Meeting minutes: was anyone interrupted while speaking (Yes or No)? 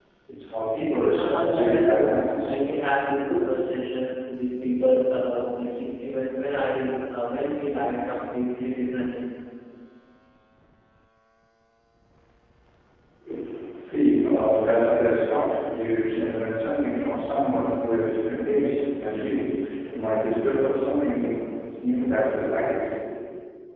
Yes